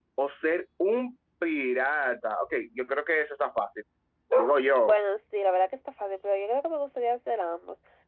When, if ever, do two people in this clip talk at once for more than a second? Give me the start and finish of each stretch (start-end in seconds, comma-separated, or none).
none